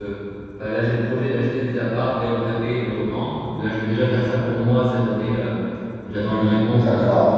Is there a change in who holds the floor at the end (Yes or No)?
Yes